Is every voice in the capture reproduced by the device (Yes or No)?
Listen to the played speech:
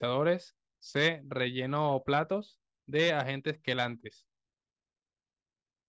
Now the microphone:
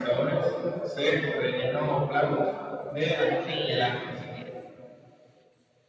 No